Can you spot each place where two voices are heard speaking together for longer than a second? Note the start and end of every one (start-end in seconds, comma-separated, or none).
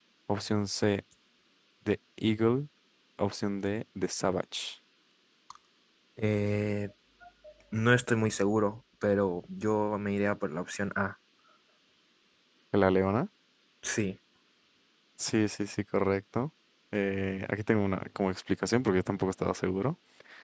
none